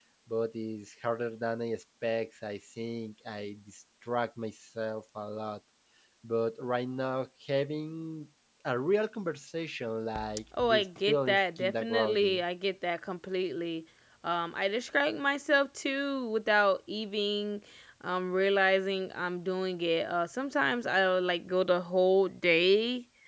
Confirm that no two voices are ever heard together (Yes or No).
No